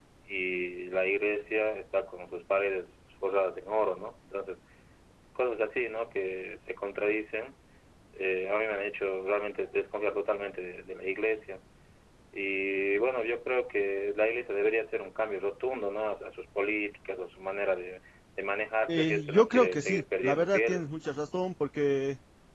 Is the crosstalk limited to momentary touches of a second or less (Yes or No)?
No